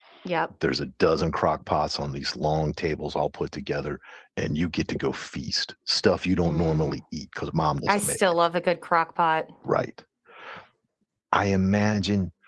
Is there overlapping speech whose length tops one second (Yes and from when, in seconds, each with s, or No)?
No